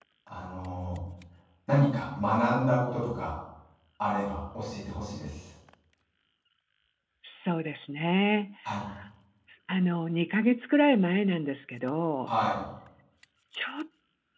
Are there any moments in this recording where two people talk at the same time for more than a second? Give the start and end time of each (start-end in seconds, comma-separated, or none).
none